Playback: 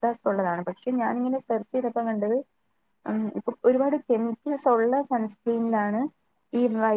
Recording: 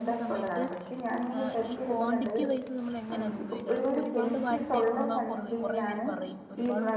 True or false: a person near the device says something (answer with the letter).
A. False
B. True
B